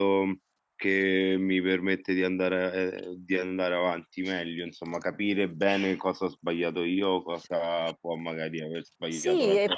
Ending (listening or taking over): taking over